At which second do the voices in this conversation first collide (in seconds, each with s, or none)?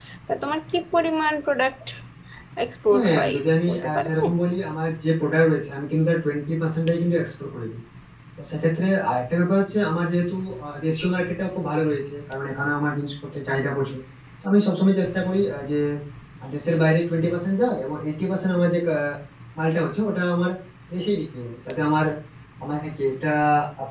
2.9 s